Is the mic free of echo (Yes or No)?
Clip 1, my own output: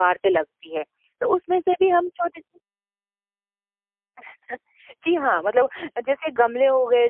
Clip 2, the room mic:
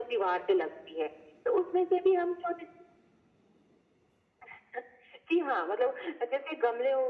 No